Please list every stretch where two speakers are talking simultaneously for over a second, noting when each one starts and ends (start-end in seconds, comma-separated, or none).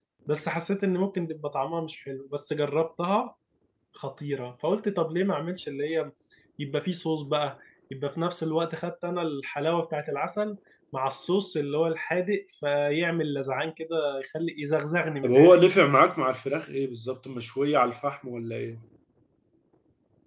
none